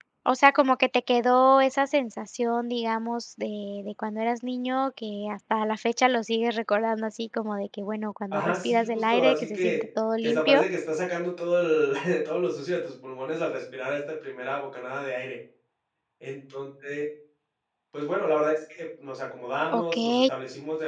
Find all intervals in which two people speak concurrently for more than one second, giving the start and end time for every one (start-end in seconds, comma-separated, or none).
8.3-9.8